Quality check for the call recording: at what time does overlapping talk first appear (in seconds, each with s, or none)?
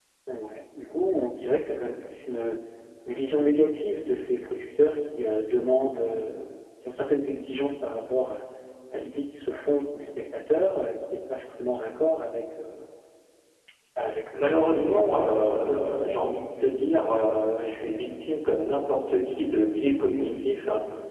14.3 s